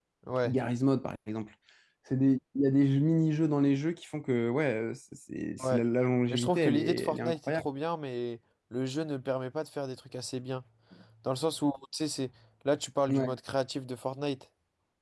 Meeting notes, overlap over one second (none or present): present